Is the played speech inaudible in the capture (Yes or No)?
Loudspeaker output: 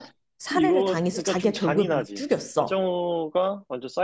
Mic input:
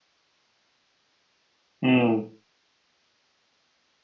Yes